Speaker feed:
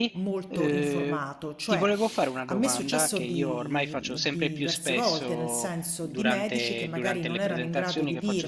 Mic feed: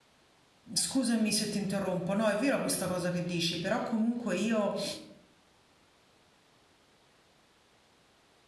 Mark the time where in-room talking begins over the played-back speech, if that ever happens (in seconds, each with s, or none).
0.7 s